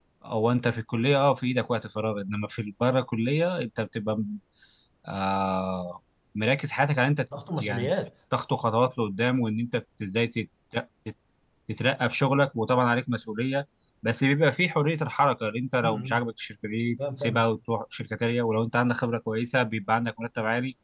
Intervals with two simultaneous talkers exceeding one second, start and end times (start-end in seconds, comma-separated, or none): none